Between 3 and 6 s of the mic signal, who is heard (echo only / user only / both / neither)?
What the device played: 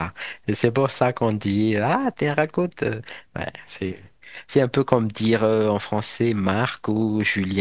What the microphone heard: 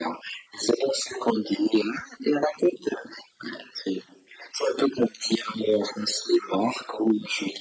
echo only